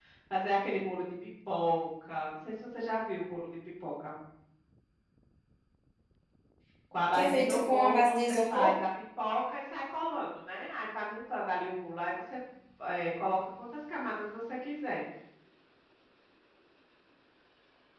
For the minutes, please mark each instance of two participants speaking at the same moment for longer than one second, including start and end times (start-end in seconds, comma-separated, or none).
7.1-8.7